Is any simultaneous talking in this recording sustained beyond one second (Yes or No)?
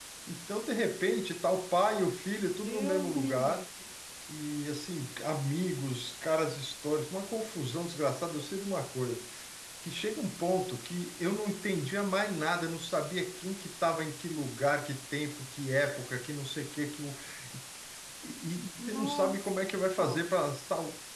Yes